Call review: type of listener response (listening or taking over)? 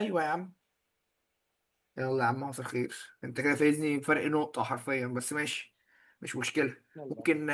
listening